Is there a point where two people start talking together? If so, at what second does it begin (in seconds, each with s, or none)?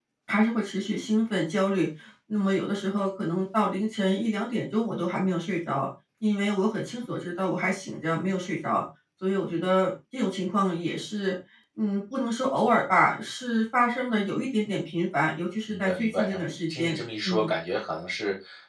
15.7 s